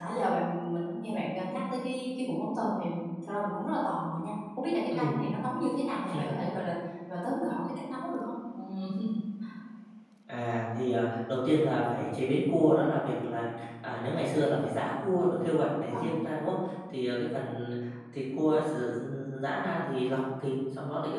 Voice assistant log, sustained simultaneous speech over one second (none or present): none